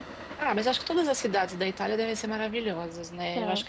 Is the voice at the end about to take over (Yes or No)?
No